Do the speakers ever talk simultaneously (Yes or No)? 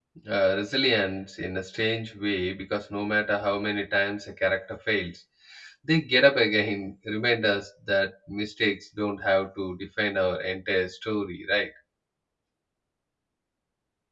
No